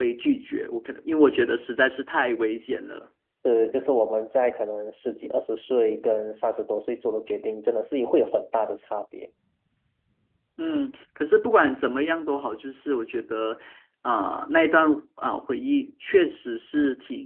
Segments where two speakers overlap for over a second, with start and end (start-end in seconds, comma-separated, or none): none